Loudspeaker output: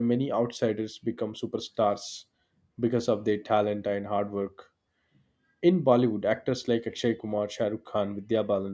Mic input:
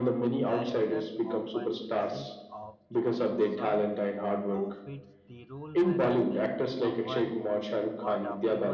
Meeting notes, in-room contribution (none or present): present